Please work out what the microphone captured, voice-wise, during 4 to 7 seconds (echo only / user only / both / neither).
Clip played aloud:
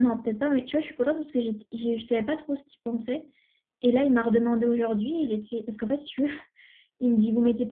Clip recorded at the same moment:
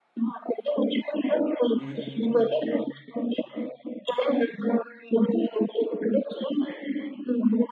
echo only